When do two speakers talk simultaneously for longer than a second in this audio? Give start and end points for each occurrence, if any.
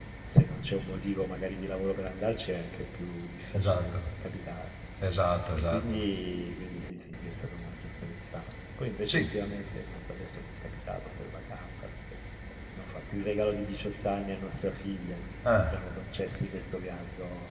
none

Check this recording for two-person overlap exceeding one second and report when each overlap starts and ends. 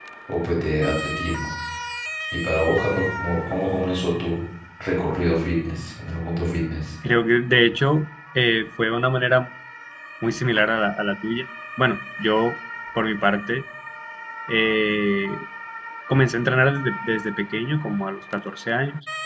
none

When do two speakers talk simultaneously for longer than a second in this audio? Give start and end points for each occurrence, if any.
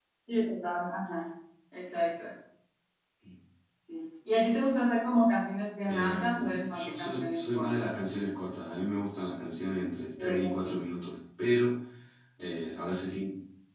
5.9-7.9

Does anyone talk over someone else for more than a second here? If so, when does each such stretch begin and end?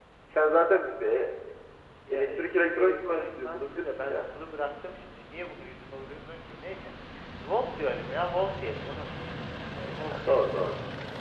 2.1-4.2

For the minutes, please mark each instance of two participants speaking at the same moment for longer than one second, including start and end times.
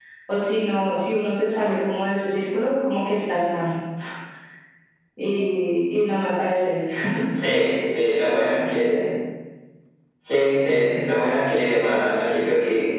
none

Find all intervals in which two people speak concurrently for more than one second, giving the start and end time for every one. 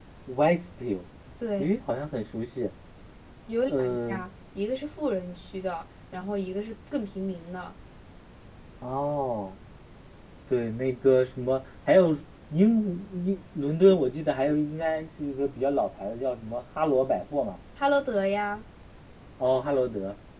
none

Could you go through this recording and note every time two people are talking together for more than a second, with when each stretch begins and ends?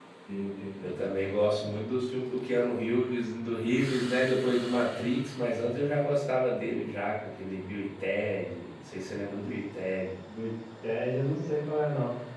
none

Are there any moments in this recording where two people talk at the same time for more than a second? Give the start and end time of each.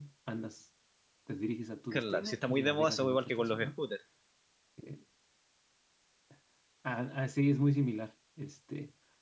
1.9-3.7

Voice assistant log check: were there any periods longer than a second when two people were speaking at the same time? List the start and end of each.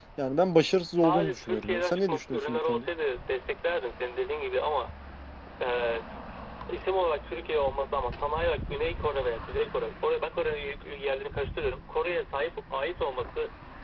0.9-2.9

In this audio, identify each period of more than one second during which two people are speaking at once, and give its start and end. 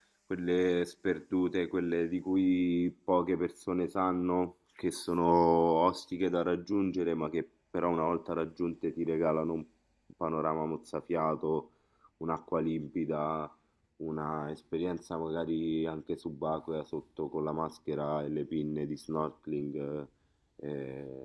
none

